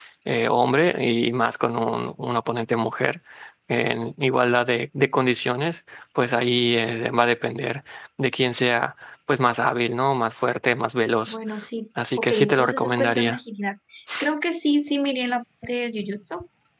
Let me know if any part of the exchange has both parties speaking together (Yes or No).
Yes